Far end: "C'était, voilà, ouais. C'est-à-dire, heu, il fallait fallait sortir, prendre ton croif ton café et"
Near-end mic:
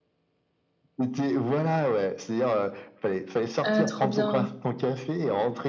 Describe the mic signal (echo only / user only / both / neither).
both